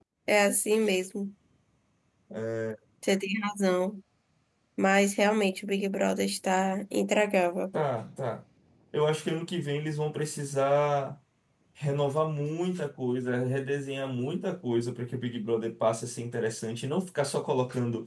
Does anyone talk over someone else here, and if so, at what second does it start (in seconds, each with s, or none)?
none